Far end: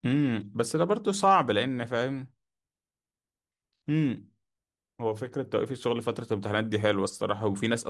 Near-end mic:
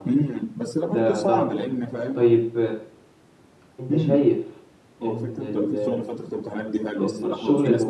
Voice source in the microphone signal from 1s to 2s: both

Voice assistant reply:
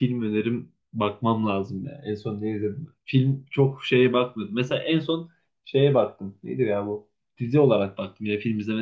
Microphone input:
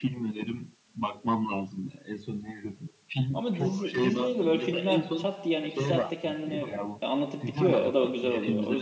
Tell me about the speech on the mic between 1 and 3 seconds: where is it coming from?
echo only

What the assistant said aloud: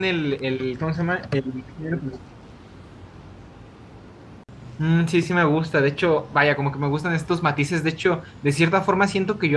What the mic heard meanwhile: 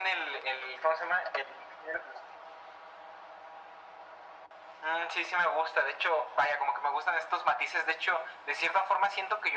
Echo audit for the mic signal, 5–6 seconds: echo only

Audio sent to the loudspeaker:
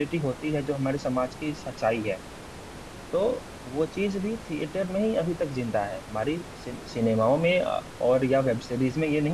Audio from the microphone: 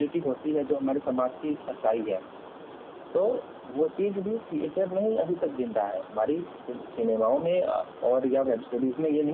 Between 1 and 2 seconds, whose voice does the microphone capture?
echo only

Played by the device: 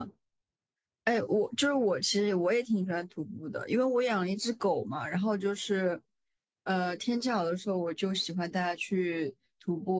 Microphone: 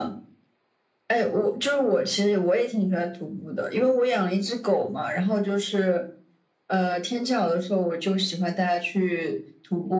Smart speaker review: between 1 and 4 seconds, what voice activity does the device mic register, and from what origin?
echo only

